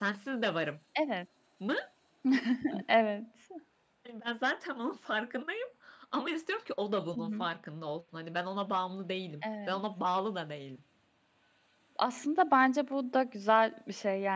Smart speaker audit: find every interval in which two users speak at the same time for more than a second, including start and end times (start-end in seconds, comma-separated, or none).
none